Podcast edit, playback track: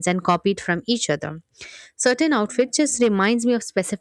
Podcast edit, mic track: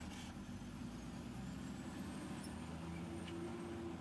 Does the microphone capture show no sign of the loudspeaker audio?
Yes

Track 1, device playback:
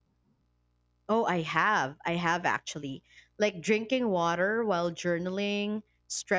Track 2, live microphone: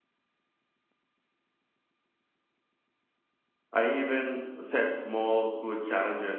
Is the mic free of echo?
Yes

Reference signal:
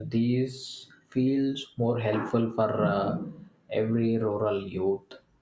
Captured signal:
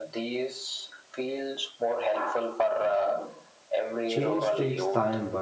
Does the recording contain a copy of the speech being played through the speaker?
Yes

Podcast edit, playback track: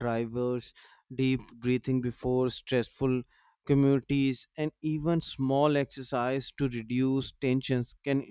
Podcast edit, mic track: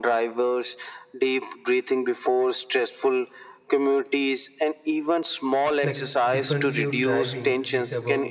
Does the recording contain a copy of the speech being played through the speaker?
Yes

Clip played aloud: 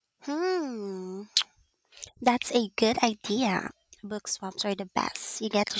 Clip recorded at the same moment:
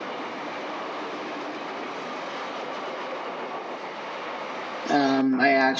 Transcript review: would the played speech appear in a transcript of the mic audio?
No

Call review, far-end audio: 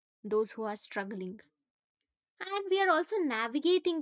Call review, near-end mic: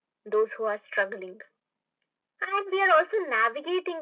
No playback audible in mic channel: No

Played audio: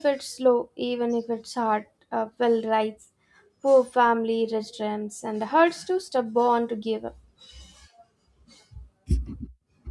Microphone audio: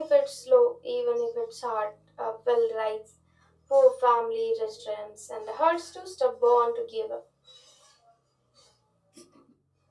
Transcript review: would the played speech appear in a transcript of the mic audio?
Yes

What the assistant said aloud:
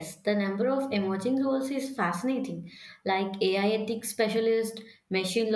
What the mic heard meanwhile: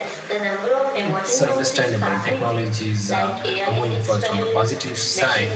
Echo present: Yes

